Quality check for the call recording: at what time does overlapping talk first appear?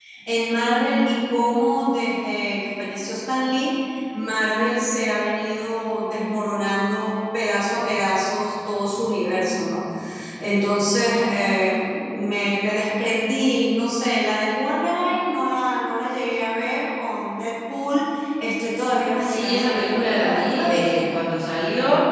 19 s

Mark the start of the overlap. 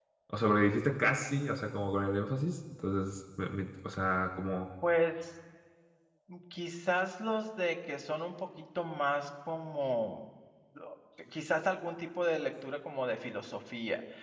none

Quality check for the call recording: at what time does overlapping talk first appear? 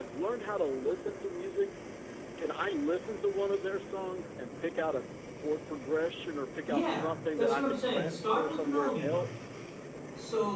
7 s

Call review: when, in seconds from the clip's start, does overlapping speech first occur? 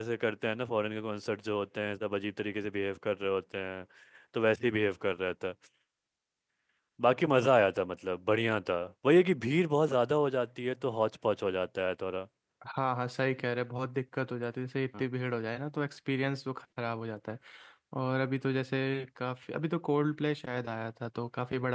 none

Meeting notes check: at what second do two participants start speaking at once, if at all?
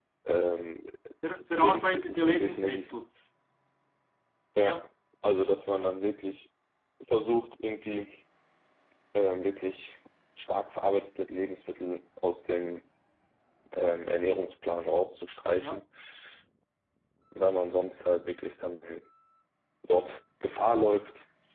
2 s

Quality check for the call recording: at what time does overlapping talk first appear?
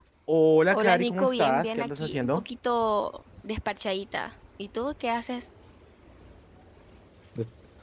1 s

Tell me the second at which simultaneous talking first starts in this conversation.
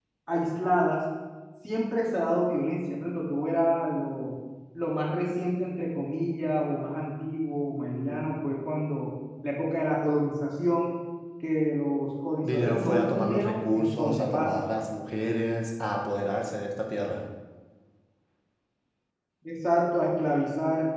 12 s

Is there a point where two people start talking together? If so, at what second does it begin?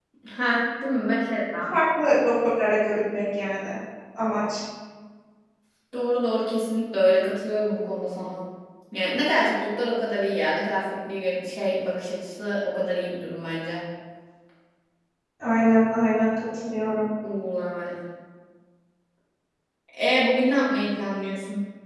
none

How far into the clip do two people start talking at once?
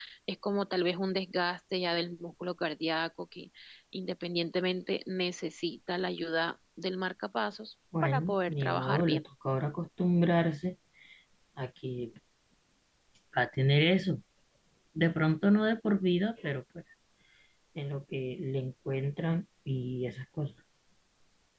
8 s

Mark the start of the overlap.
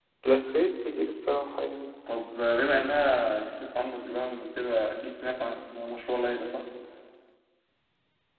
none

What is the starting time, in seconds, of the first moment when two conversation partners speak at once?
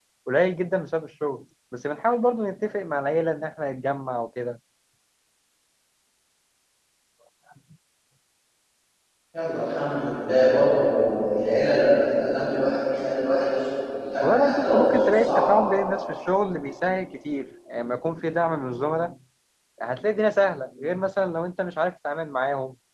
14 s

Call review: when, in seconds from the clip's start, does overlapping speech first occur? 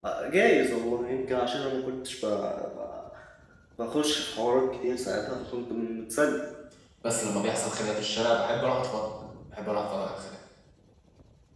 none

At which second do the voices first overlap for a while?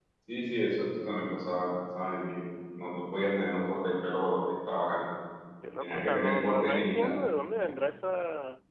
6 s

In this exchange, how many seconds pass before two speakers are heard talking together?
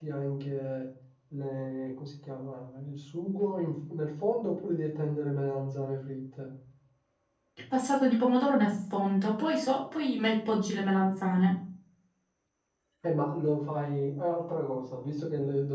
none

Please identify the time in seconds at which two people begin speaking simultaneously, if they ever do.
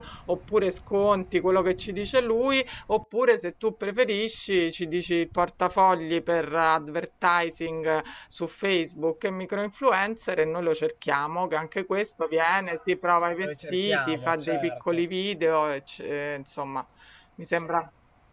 13 s

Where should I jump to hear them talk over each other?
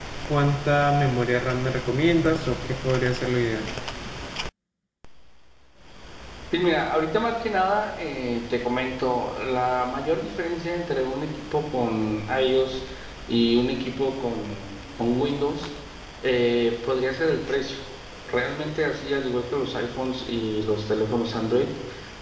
none

